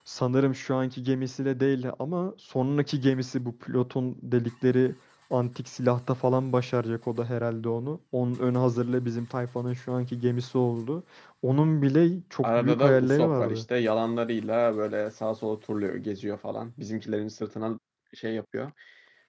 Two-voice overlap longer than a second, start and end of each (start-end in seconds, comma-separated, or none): 12.4-13.6